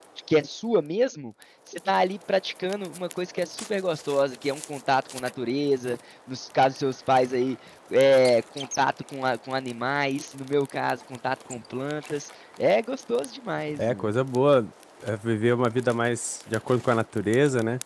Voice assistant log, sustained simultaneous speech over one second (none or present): none